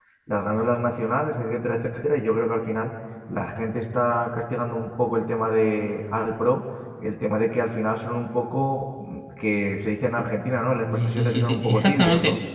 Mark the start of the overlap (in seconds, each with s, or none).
10.9 s